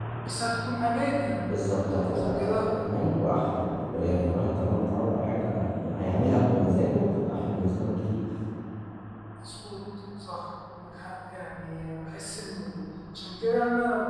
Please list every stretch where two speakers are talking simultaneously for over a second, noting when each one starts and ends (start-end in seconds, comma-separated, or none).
1.4-2.8